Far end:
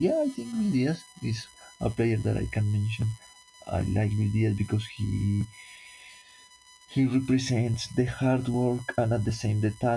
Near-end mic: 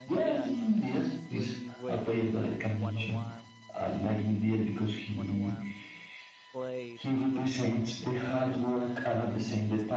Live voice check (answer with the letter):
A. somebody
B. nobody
A